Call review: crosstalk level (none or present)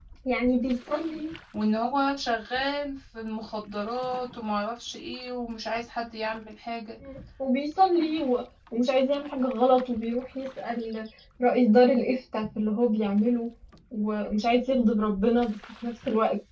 none